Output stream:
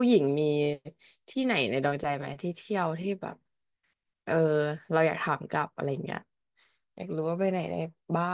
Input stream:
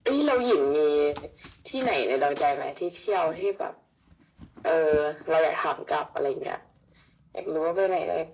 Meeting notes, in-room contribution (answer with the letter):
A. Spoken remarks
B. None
B